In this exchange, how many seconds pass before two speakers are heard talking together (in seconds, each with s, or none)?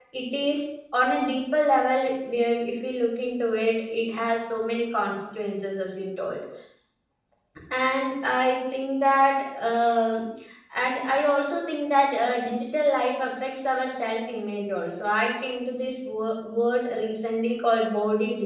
none